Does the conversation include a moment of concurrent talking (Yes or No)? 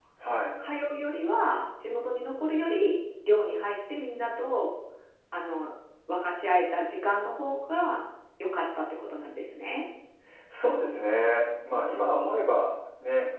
No